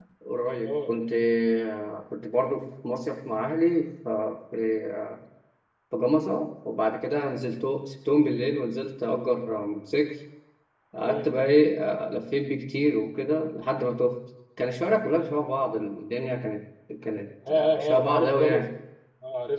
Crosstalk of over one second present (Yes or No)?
Yes